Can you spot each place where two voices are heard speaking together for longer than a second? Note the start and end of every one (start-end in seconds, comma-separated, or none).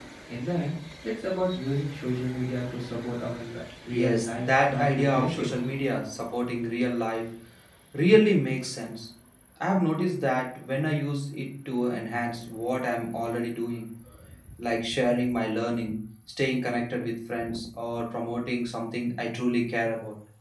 3.9-5.5